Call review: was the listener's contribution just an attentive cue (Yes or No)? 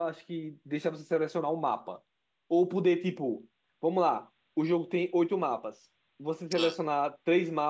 Yes